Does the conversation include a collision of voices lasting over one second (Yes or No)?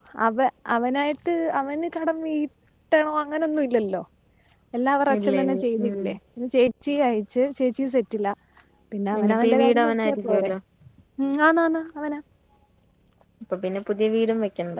Yes